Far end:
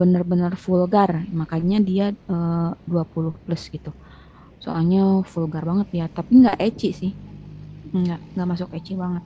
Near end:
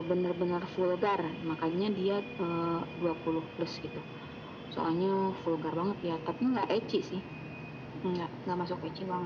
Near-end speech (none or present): none